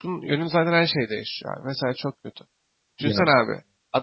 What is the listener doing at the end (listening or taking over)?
listening